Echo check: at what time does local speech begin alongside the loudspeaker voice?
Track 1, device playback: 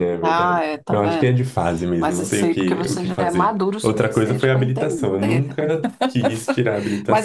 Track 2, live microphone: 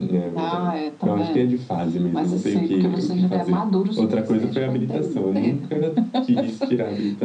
none

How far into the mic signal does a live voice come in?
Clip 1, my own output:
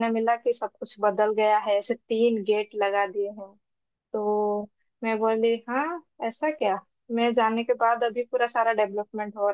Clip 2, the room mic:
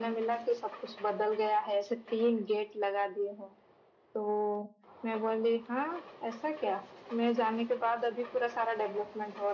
none

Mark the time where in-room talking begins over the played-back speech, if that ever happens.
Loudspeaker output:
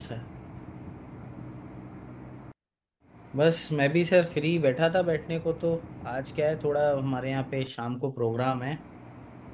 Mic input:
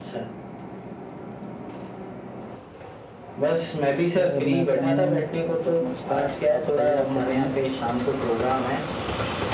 4 s

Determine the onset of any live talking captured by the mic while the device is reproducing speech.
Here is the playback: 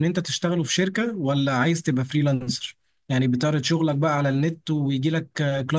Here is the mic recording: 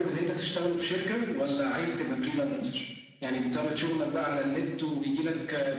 none

